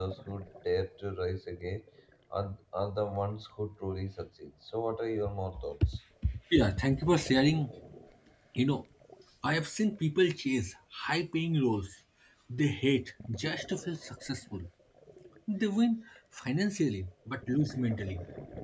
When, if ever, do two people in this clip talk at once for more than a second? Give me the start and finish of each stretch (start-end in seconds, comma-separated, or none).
none